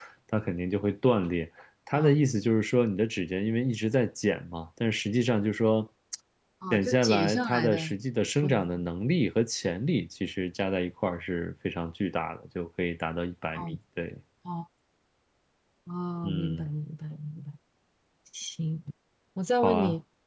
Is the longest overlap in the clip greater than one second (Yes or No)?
Yes